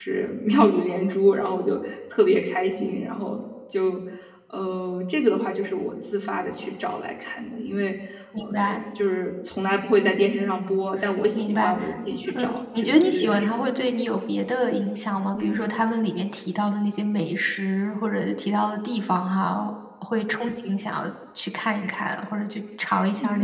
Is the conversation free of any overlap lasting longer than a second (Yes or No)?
No